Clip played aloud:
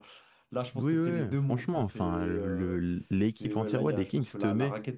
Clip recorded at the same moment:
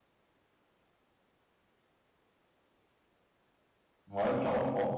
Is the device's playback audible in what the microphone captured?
No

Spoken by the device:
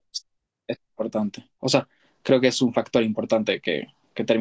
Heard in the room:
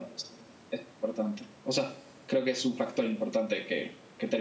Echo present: Yes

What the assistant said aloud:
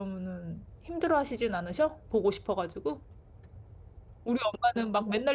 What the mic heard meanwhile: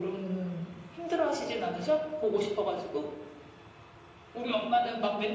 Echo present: Yes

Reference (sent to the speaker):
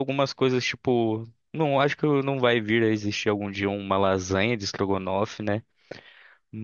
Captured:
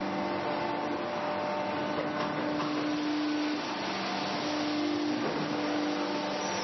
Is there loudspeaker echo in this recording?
No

